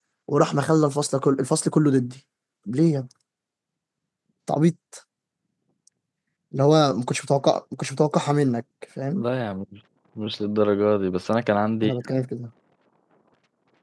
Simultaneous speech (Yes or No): No